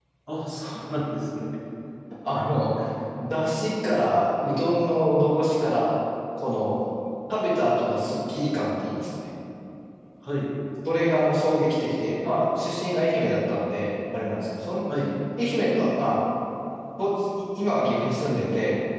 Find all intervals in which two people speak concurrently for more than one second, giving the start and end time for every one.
none

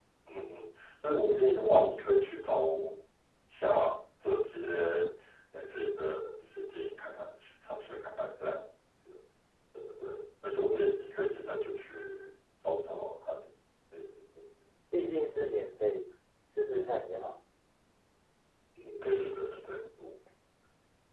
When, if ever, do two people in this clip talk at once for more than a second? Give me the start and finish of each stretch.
none

